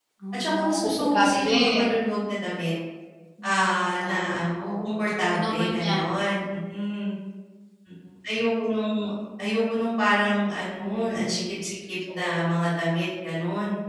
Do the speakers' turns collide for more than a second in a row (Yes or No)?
Yes